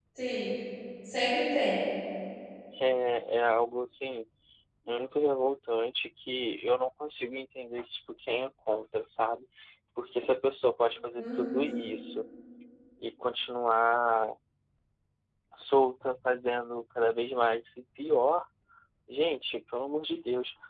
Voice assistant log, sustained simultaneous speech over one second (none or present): none